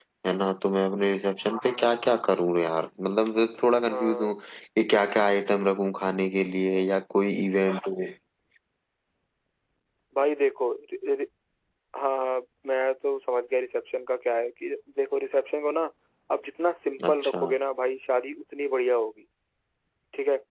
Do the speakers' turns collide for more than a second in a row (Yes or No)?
No